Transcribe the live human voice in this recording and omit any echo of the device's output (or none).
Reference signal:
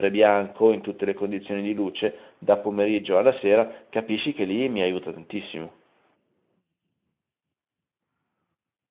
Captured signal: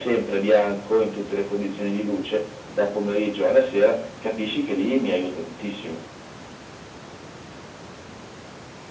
none